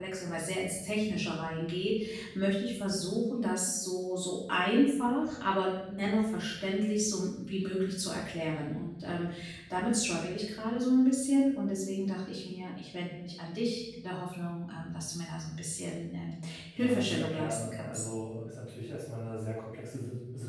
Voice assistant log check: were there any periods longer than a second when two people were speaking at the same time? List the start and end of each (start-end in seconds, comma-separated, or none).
16.8-18.0